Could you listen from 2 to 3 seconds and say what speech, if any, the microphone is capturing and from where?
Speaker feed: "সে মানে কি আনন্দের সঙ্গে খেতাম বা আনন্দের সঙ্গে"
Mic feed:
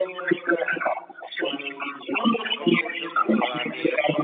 both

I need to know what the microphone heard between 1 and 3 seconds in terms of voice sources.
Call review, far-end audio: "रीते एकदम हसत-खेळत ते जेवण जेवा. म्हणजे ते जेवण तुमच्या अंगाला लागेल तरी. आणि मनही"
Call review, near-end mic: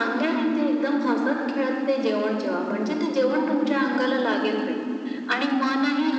echo only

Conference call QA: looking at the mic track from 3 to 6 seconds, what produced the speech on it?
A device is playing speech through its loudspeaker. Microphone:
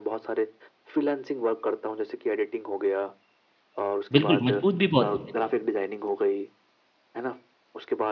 both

